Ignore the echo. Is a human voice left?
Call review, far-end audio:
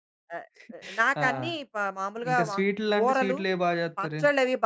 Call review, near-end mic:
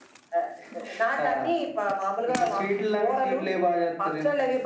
No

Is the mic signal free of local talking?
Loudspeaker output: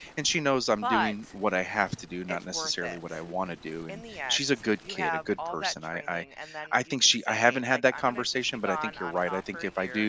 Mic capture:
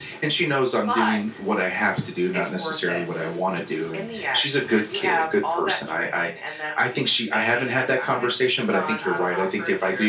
Yes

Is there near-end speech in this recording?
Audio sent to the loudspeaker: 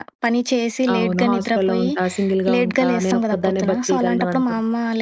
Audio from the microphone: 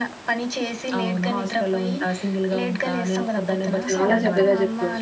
Yes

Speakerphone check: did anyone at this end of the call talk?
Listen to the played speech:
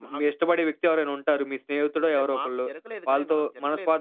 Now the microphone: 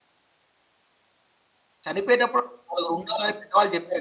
Yes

